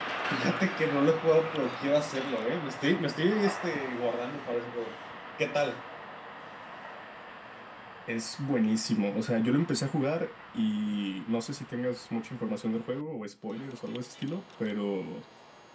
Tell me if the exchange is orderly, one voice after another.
Yes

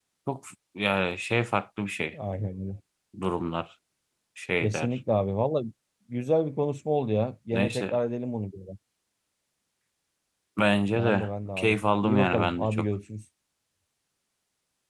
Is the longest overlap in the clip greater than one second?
Yes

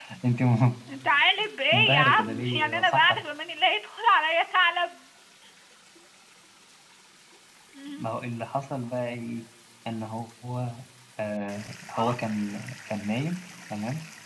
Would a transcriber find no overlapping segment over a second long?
No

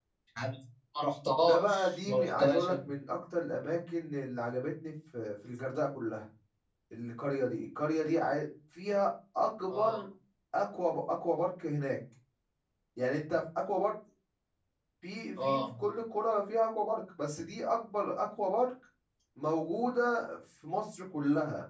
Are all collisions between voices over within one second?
No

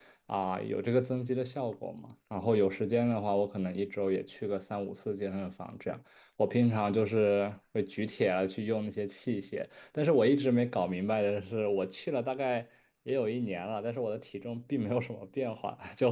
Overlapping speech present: No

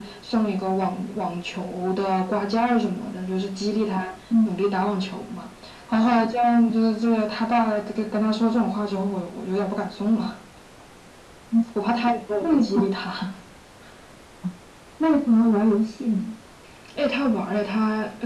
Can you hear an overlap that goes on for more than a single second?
No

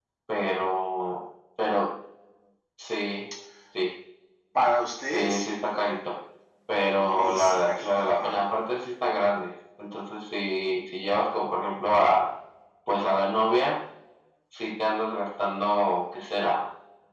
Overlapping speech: Yes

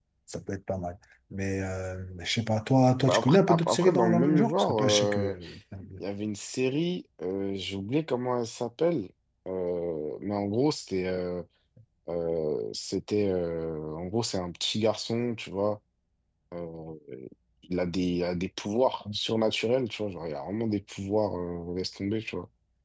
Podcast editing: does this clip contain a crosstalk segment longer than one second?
Yes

